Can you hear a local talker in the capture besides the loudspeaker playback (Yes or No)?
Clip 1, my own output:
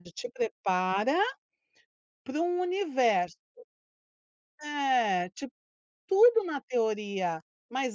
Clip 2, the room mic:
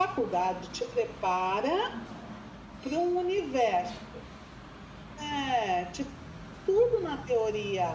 No